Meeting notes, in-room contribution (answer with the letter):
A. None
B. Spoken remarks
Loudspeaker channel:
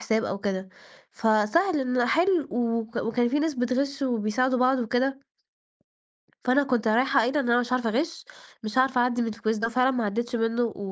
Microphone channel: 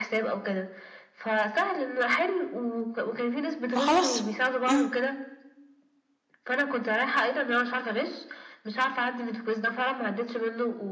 B